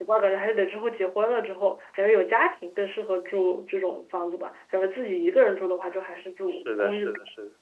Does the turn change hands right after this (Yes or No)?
Yes